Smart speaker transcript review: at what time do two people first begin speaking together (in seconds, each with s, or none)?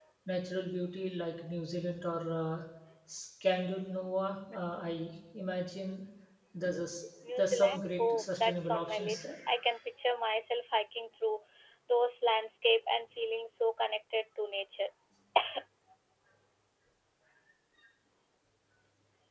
7.4 s